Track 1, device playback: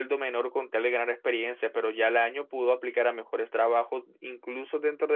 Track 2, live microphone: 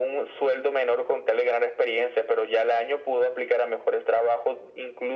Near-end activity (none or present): none